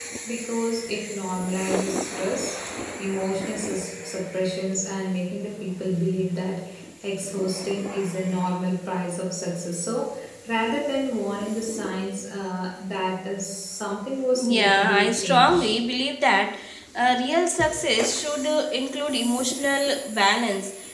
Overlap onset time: 14.3 s

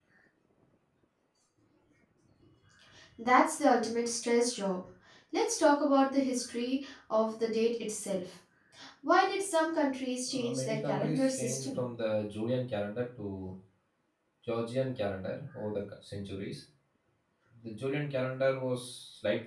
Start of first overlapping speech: 10.3 s

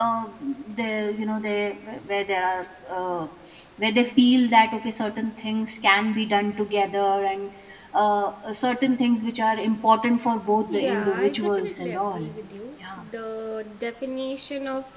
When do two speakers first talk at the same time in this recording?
10.7 s

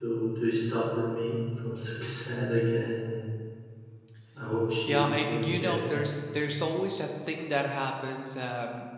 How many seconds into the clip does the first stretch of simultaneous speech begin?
4.9 s

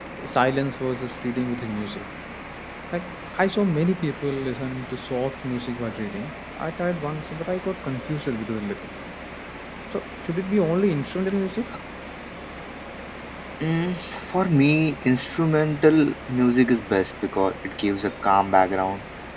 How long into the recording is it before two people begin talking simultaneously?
none

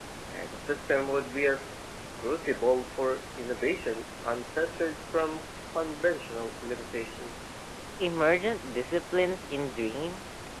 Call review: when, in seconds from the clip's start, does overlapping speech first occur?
none

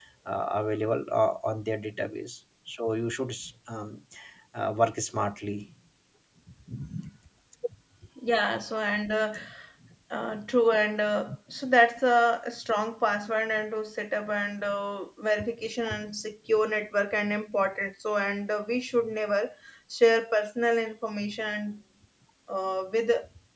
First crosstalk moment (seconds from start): none

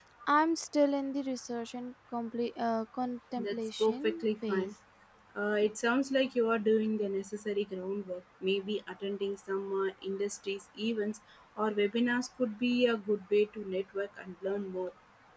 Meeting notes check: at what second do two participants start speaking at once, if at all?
3.4 s

